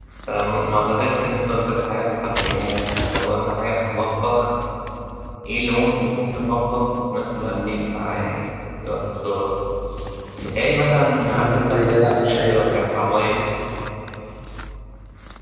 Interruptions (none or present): present